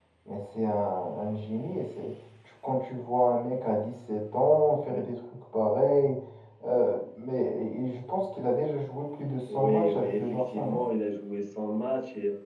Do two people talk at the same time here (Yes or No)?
Yes